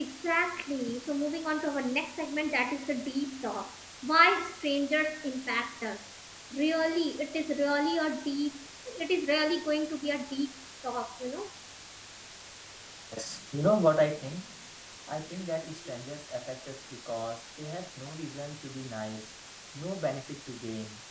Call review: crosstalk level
none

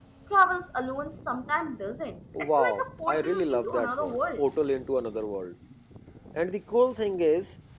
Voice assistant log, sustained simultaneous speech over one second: present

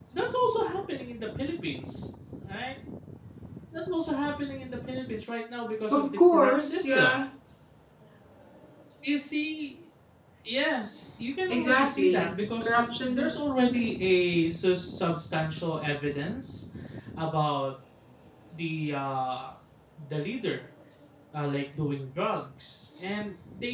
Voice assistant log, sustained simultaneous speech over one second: present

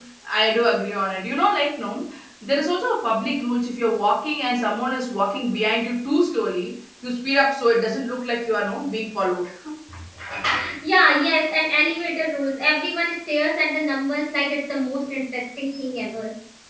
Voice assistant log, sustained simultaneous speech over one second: none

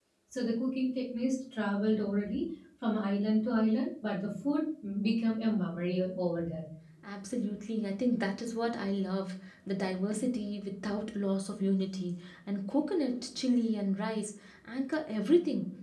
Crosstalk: none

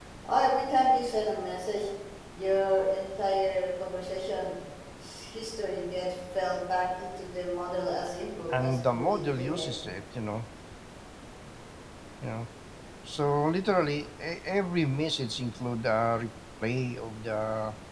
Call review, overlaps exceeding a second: present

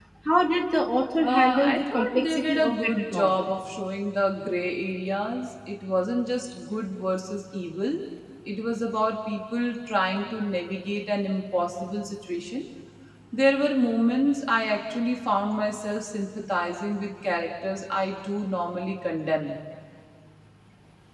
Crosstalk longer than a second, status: present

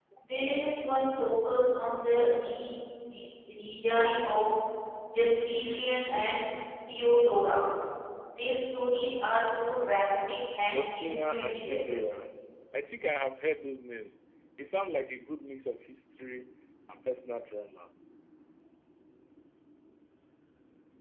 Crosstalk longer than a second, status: present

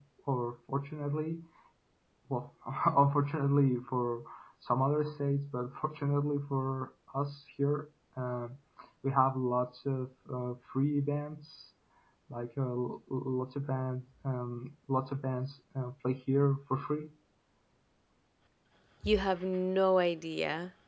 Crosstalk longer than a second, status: none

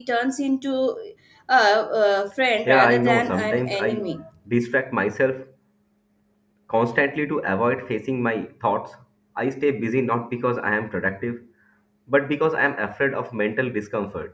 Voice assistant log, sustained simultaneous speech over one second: present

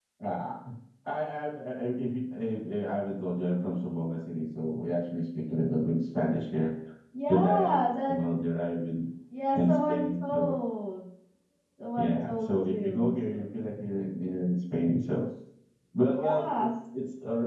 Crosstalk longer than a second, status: present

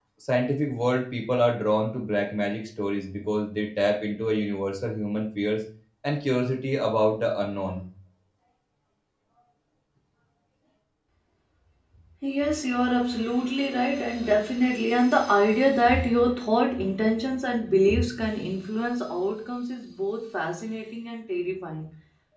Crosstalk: none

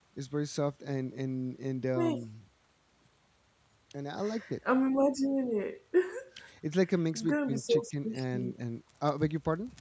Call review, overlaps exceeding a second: present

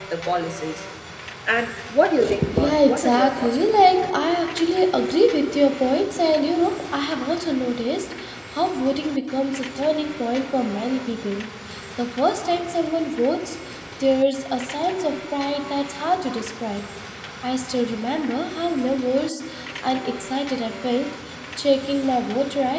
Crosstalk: present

